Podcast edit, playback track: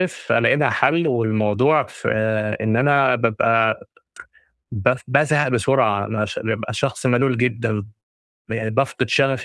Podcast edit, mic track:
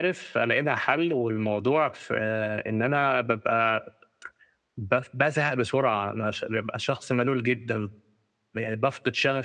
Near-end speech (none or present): none